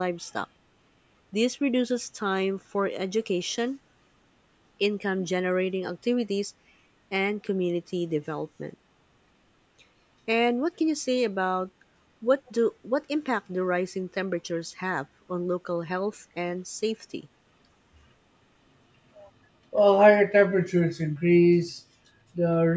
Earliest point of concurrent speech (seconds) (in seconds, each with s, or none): none